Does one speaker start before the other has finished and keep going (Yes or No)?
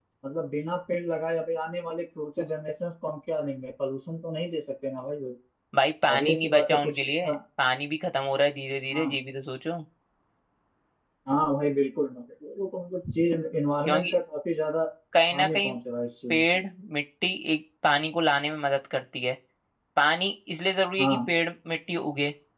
Yes